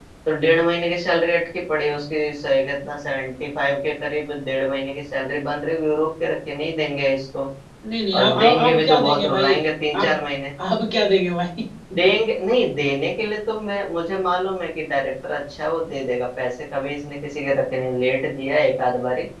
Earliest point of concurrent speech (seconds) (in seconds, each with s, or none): 8.2 s